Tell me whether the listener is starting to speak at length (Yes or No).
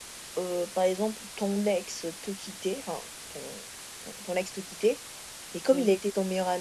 No